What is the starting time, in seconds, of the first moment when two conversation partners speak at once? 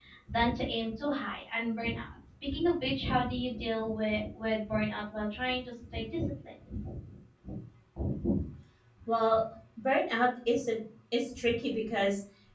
none

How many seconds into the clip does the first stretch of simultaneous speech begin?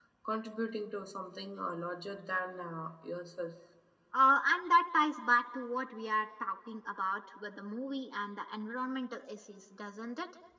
none

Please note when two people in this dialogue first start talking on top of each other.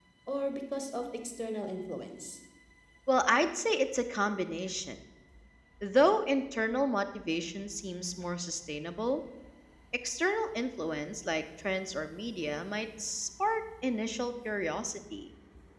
none

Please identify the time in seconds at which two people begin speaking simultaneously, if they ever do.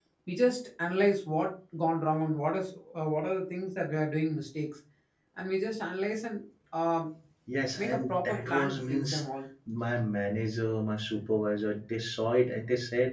7.8 s

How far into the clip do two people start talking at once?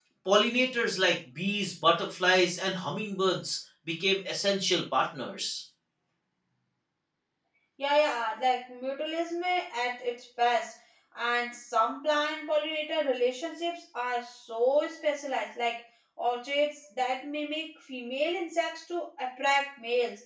none

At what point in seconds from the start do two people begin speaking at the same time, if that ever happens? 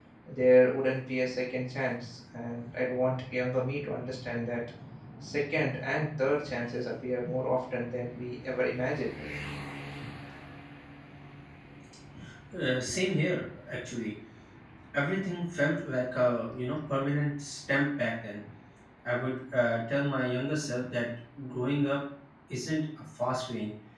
none

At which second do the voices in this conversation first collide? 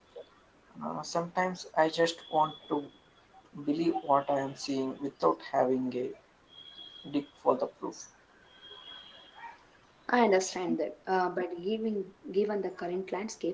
none

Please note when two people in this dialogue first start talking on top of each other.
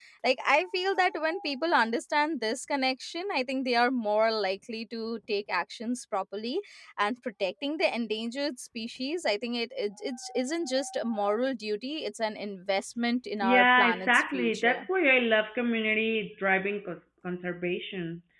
13.4 s

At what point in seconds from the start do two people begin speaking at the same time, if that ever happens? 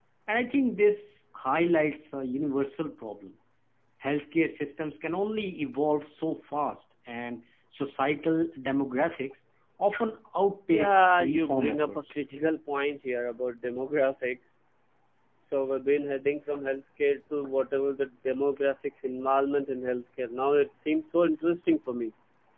10.7 s

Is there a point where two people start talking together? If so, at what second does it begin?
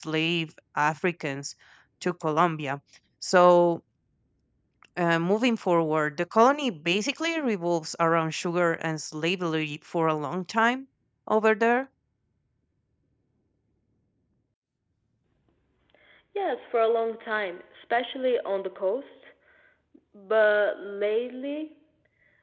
none

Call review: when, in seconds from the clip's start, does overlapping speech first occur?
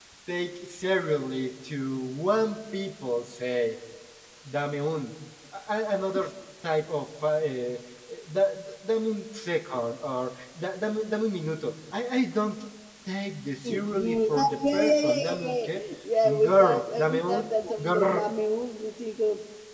13.7 s

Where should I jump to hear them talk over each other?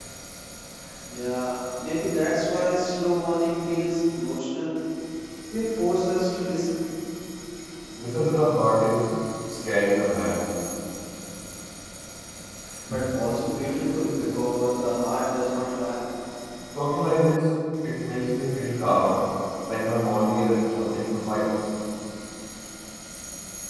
none

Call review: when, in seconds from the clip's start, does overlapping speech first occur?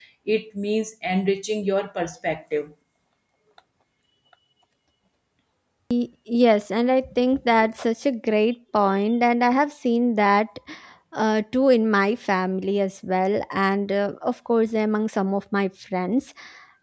none

